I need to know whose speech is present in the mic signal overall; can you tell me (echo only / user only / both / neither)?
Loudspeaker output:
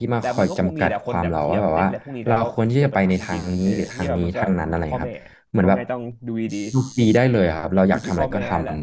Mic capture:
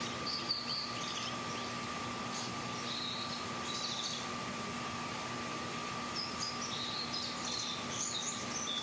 neither